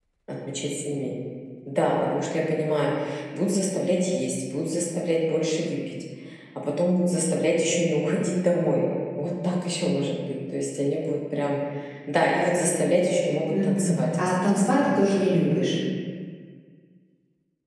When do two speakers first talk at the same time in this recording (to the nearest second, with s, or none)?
14 s